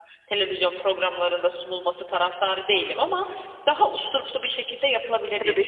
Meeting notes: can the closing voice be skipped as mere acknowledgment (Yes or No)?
No